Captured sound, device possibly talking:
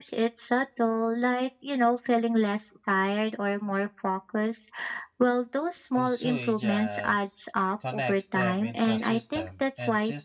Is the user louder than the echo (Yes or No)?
No